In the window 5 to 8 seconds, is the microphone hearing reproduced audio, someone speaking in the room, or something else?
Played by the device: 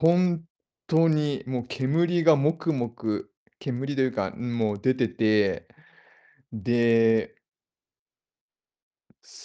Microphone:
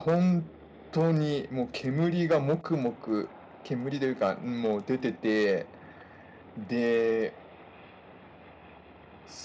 echo only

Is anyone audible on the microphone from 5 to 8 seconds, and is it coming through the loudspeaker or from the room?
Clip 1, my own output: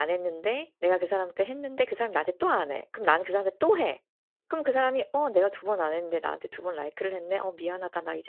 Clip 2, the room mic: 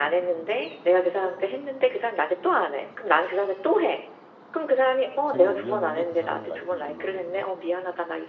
both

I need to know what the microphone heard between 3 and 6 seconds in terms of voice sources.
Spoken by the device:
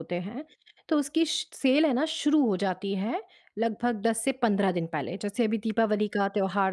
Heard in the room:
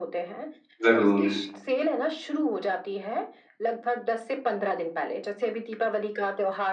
echo only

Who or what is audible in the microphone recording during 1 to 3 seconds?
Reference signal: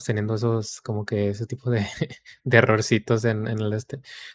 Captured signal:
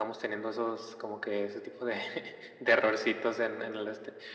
echo only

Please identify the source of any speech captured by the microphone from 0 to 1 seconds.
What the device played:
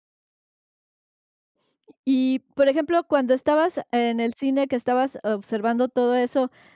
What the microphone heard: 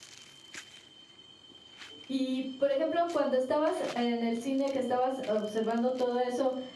neither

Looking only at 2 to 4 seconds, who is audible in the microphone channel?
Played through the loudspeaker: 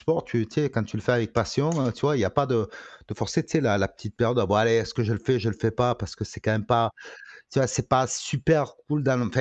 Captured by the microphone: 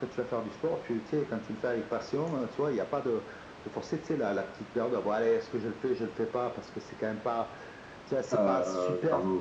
echo only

